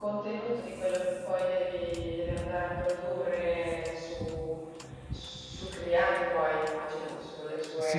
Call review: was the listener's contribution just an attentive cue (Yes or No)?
No